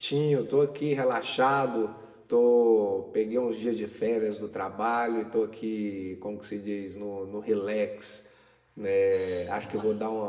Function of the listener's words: listening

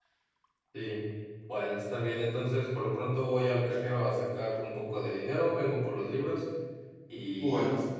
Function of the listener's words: listening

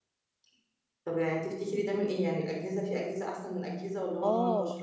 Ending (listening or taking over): taking over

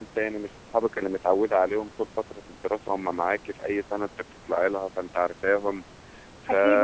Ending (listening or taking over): taking over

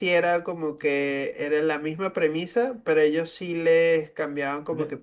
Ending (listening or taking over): listening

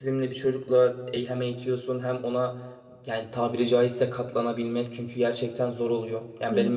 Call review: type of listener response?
listening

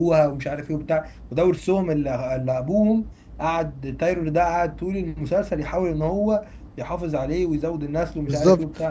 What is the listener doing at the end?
taking over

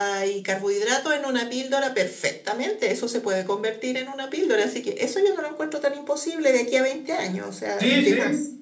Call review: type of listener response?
taking over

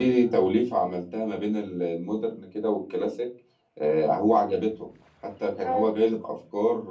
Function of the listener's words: listening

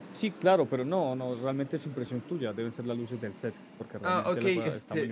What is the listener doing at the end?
taking over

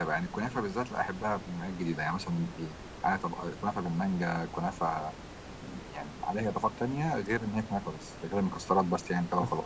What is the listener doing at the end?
taking over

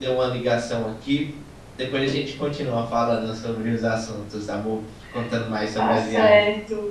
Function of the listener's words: taking over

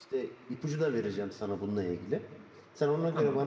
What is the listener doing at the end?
listening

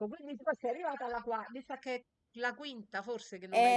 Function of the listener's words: taking over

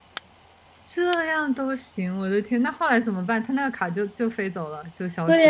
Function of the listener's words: taking over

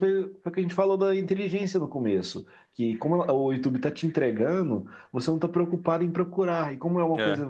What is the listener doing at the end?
listening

